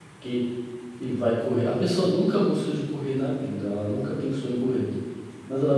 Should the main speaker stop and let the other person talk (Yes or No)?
No